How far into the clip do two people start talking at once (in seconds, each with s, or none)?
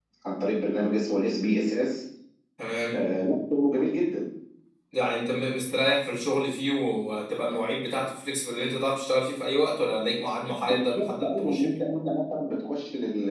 10.4 s